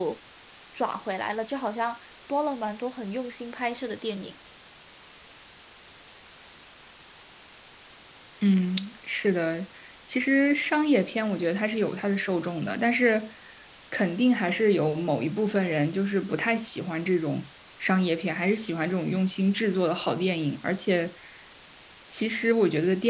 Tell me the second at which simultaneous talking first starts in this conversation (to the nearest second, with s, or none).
none